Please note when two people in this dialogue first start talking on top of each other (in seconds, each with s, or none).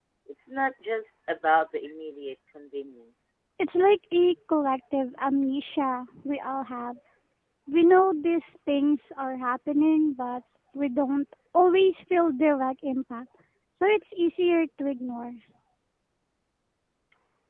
none